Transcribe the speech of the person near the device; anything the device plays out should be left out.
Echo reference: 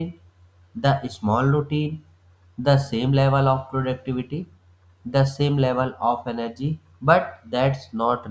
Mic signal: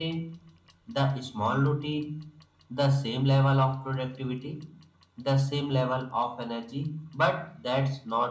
none

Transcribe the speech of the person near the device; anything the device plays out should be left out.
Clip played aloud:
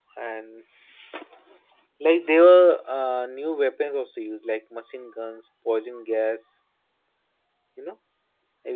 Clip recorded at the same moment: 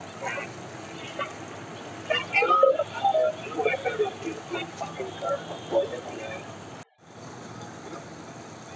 none

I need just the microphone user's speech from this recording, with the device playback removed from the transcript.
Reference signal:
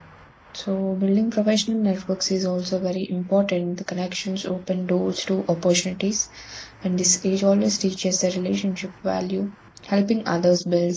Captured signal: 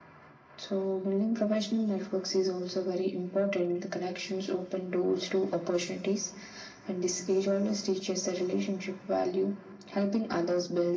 none

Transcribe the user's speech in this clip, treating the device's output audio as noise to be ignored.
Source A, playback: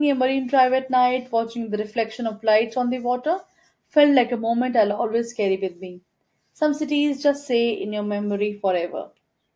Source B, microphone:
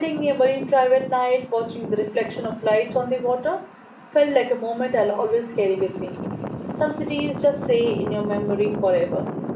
none

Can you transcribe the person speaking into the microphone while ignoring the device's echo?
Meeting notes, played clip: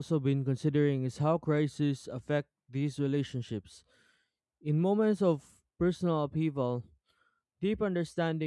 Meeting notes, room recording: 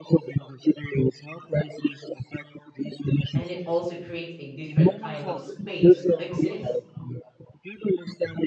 and it also creates a different kind of space to exist.

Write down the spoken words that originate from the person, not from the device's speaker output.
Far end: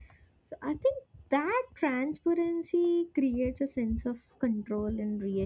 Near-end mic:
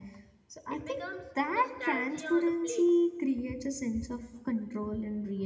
It becomes nostalgia on a plate

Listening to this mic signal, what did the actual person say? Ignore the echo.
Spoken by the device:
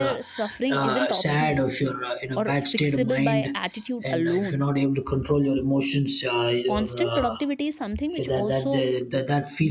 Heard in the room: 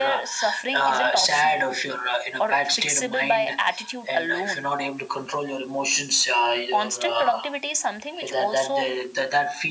none

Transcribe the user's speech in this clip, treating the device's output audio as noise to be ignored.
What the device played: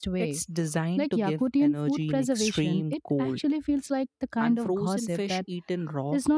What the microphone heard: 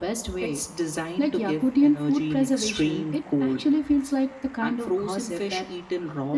none

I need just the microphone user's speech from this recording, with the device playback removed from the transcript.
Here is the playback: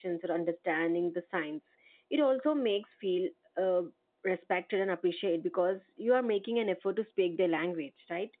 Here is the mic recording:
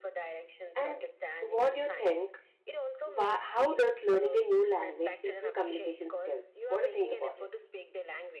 And what do you think? Why, how does learning a new language improve communication skills? What do you think about it?

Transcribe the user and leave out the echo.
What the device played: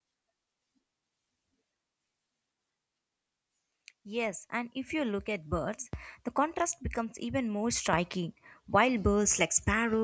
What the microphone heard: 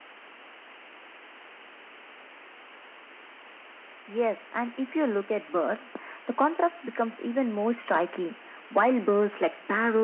none

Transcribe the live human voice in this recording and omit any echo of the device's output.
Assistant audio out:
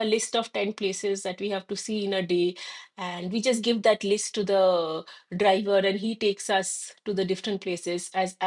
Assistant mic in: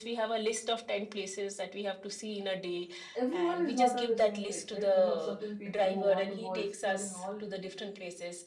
everyone is not on the same page, right? You have certain people who want to go exploring all

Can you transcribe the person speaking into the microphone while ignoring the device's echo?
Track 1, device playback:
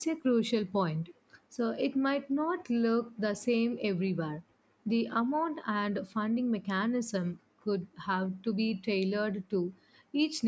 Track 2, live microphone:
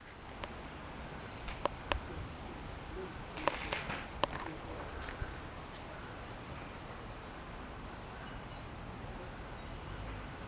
none

